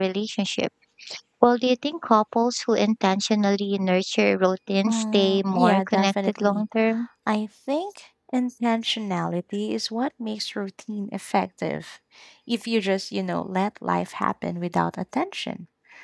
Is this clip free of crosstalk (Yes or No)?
No